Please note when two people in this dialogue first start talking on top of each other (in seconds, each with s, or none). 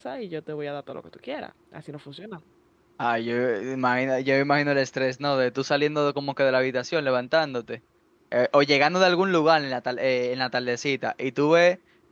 none